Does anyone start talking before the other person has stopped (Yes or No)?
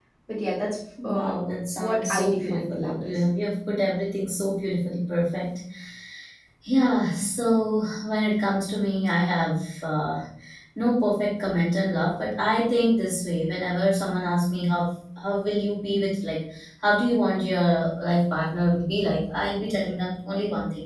Yes